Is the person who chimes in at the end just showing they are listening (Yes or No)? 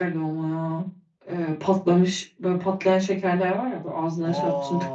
No